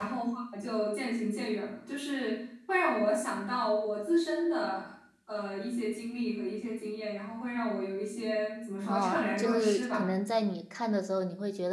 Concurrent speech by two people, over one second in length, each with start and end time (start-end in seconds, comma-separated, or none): 8.8-10.0